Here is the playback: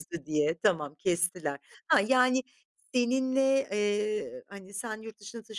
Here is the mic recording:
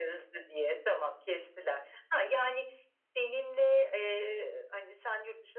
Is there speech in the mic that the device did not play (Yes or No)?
No